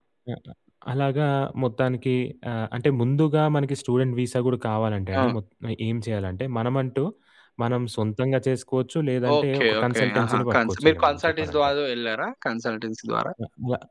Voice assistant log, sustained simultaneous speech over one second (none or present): present